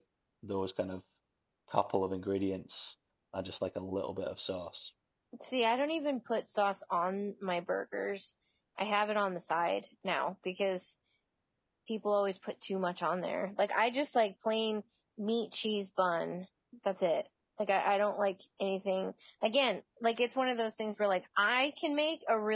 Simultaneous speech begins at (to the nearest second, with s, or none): none